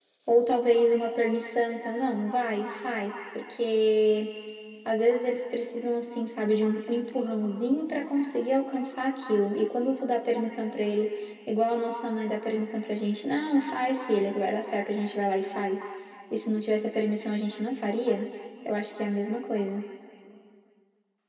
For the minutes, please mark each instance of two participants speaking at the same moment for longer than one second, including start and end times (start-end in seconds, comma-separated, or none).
none